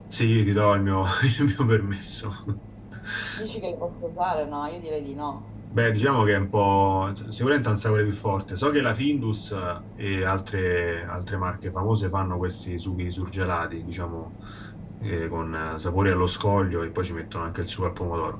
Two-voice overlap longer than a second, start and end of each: none

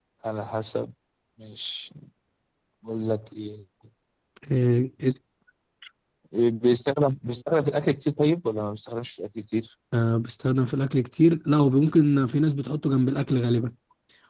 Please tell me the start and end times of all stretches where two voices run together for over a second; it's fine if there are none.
none

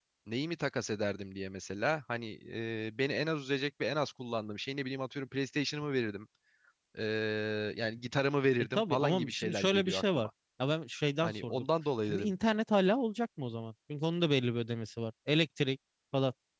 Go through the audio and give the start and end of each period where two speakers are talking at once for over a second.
8.6-10.3

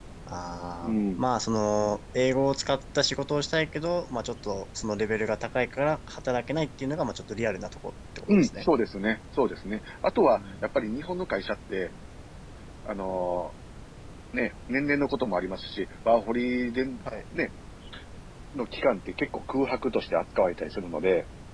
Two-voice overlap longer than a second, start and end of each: none

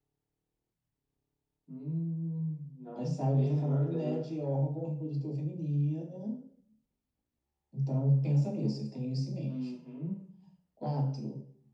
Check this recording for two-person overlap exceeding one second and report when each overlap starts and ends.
2.9-4.2

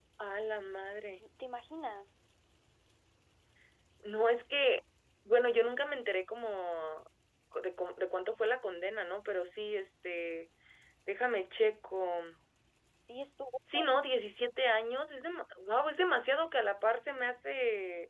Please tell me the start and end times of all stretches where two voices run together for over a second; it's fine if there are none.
none

